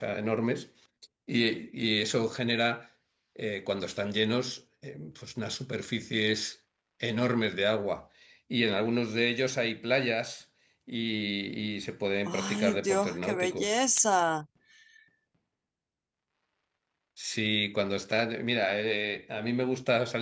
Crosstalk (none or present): present